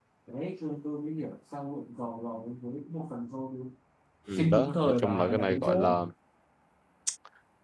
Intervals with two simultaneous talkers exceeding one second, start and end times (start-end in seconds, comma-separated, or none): 4.3-6.0